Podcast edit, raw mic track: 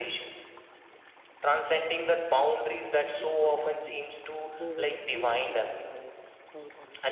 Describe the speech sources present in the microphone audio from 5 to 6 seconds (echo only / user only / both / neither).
both